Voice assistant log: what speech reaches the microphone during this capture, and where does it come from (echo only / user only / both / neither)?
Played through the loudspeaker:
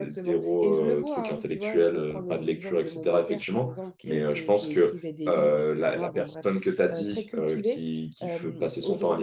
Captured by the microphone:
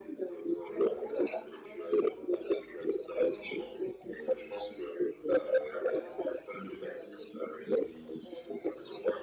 echo only